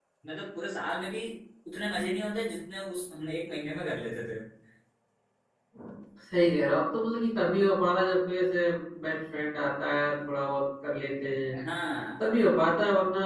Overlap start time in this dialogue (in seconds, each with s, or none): none